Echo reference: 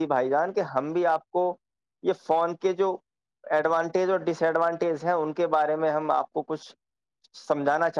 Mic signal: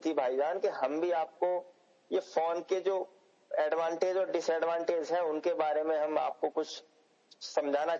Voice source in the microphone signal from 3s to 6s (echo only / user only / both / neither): echo only